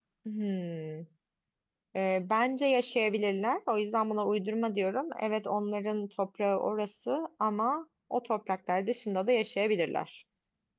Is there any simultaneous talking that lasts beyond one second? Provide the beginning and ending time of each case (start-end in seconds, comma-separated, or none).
none